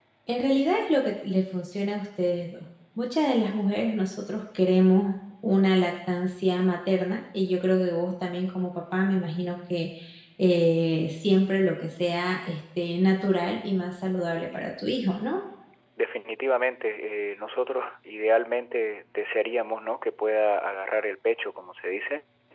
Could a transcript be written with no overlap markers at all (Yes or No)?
Yes